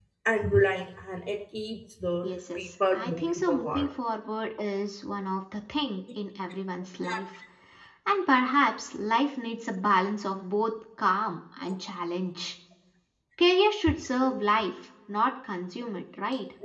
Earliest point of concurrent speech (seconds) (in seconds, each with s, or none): 2.2 s